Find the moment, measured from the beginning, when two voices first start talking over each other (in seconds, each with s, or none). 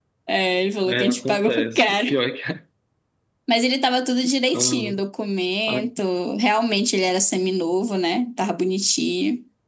0.8 s